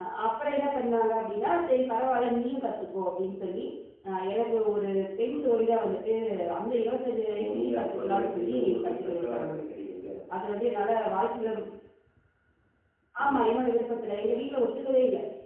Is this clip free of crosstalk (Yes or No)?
No